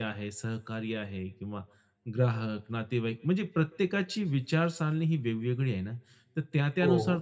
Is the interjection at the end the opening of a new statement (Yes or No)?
No